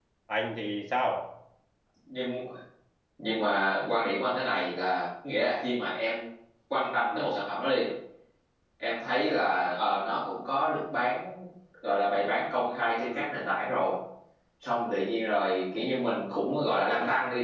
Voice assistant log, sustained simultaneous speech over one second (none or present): none